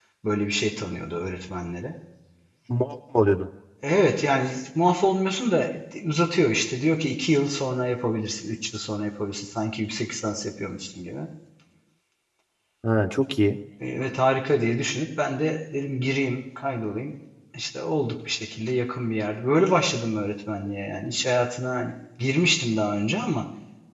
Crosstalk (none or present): none